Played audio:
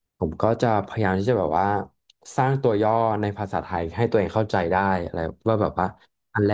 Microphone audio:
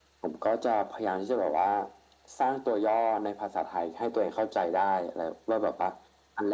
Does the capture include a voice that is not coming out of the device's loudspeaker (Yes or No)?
No